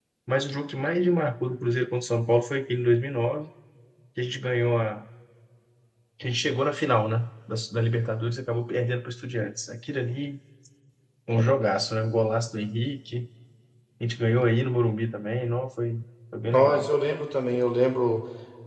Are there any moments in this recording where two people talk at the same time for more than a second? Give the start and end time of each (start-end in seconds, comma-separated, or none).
none